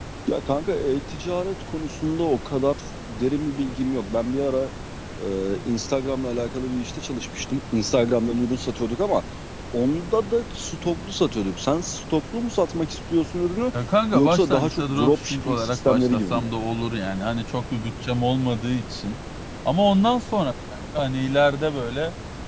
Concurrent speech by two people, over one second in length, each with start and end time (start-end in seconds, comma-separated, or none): 14.1-16.5